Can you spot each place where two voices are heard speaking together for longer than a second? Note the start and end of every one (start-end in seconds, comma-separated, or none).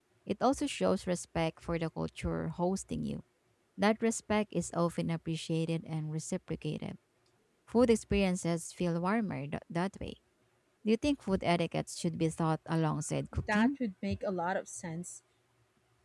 none